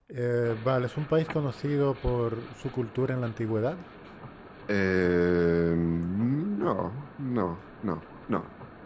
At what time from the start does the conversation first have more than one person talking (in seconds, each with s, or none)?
none